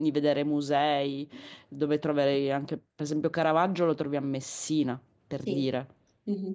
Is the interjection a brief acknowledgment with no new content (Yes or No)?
No